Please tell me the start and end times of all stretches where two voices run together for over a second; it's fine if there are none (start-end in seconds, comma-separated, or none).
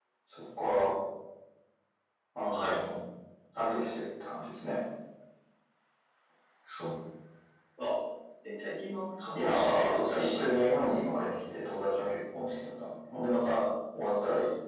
9.3-10.6